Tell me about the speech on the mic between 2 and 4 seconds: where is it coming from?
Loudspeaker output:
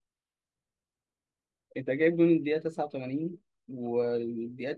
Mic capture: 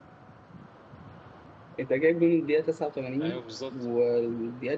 both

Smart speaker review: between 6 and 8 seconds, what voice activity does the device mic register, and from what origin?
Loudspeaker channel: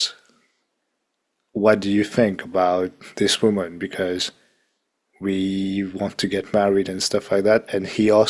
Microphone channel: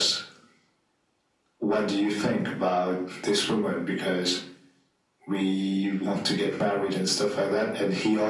echo only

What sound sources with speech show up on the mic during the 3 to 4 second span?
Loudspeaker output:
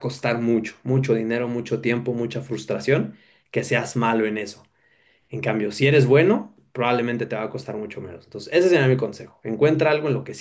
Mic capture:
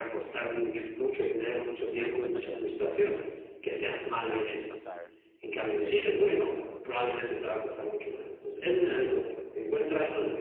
both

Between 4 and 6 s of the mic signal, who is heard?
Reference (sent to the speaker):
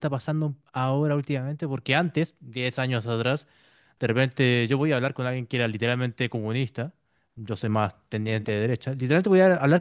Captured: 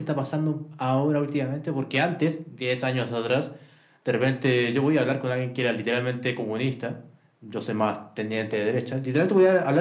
echo only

